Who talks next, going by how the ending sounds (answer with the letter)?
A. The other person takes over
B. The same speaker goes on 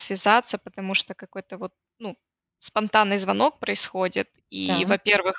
B